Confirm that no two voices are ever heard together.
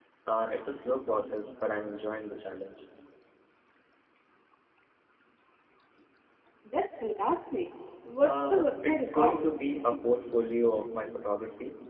No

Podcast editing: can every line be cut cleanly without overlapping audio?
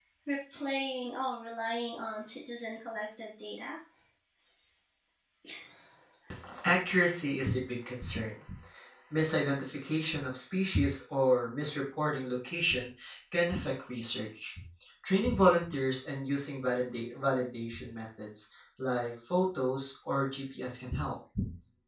Yes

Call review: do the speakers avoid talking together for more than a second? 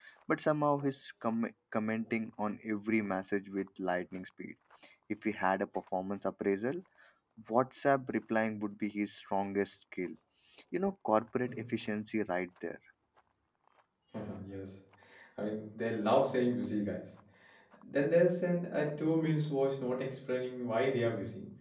Yes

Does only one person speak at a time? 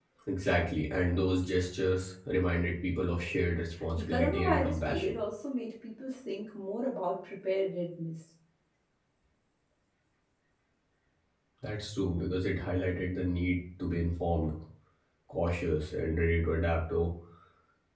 No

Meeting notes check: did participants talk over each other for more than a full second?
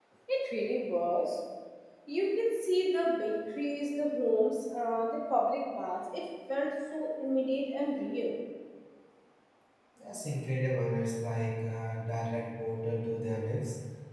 No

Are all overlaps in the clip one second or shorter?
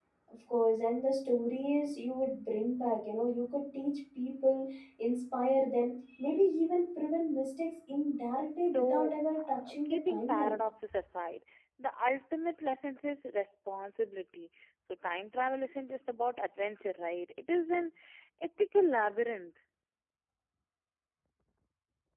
No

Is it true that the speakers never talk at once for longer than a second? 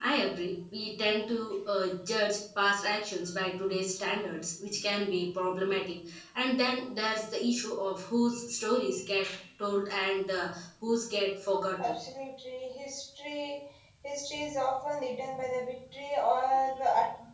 Yes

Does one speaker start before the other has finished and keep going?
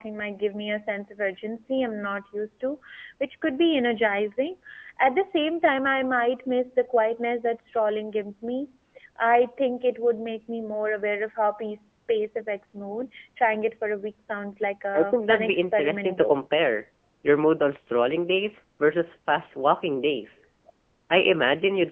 Yes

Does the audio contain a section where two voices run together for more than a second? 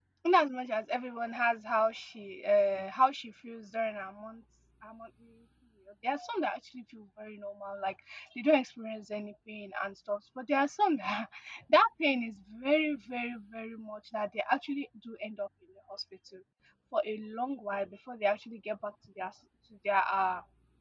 No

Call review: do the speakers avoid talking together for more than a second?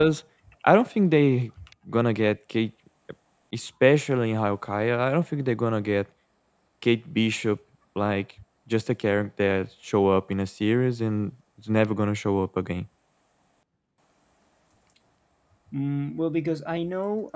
Yes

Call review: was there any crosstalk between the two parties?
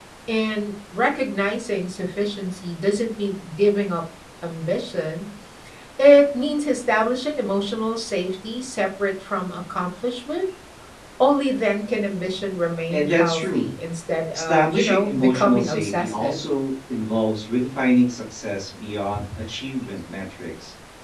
Yes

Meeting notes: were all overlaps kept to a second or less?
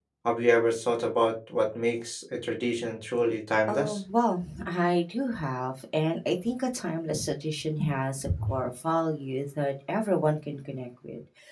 Yes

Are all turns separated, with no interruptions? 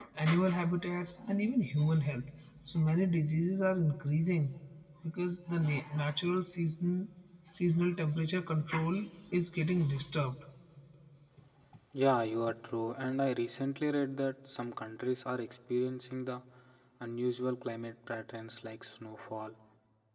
Yes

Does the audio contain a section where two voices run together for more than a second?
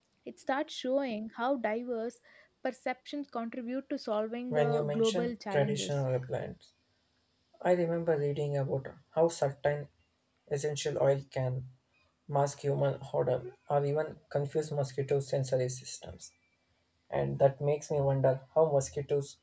Yes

